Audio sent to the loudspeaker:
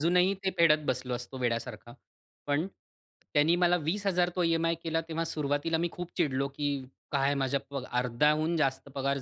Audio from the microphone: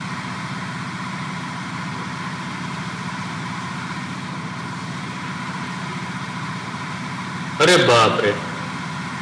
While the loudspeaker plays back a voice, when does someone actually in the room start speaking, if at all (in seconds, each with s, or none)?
7.6 s